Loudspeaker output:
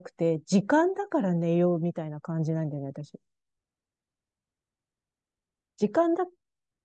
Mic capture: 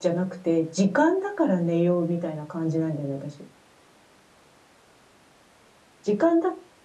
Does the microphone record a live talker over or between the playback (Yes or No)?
No